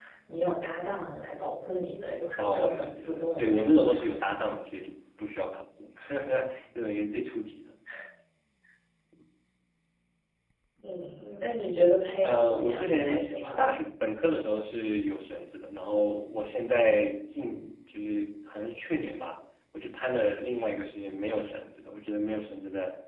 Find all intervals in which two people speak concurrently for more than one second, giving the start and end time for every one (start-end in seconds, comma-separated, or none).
2.4-4.2, 12.2-13.7